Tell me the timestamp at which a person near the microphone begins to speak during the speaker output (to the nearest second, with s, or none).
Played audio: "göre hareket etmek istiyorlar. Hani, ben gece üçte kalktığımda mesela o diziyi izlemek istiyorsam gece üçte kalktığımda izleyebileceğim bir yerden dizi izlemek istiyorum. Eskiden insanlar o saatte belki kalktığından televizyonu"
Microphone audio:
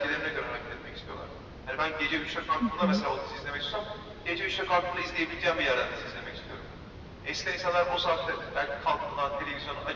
3 s